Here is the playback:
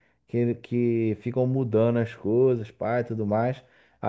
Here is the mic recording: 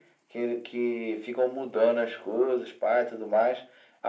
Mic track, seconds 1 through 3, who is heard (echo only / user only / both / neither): echo only